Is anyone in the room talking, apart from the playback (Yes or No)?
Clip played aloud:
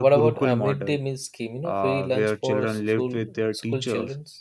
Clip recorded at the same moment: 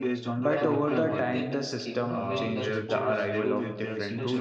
Yes